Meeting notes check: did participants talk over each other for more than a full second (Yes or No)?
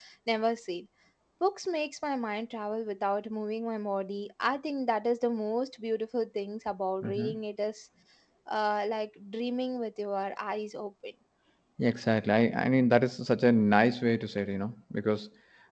No